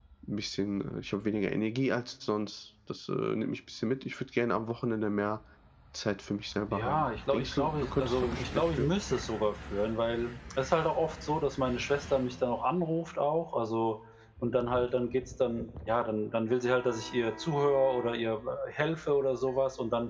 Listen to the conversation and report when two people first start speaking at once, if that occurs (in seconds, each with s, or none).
6.7 s